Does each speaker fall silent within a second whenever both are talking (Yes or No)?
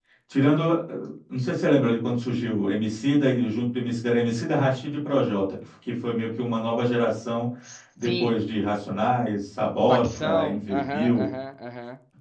No